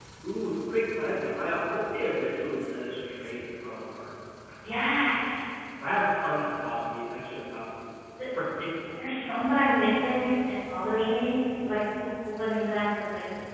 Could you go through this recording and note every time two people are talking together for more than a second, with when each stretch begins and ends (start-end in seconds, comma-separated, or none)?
none